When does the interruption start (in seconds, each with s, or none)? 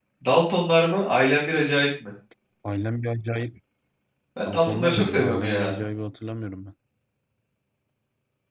4.5 s